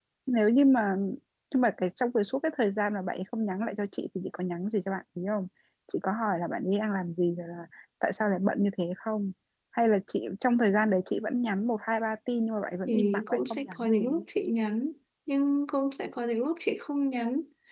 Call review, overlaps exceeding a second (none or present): present